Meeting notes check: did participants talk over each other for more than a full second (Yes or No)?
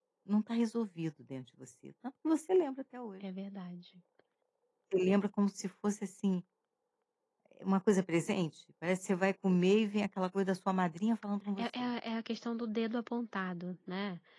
No